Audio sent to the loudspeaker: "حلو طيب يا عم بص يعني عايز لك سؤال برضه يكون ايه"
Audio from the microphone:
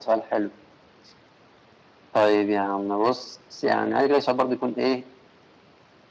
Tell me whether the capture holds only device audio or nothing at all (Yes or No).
Yes